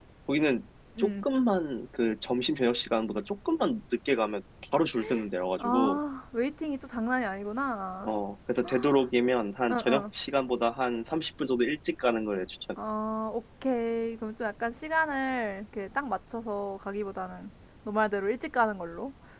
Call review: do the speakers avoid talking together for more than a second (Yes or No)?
Yes